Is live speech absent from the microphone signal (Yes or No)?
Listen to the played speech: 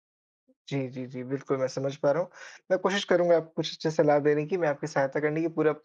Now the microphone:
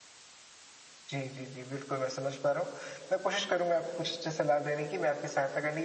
Yes